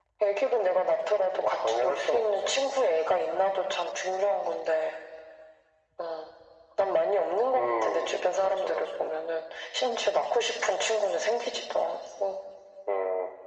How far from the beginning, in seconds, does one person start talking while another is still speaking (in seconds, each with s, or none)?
1.3 s